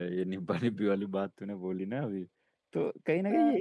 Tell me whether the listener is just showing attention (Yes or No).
Yes